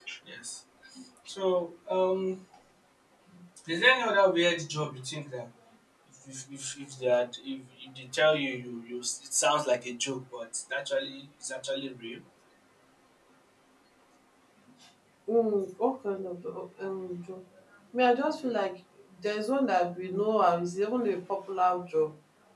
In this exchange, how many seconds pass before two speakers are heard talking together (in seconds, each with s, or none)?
none